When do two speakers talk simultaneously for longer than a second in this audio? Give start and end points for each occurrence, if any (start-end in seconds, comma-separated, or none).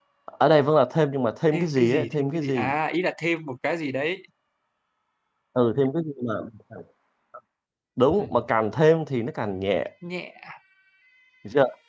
1.5-2.7